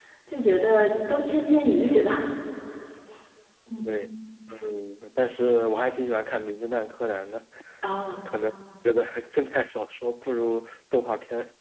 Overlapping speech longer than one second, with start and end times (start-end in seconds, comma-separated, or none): none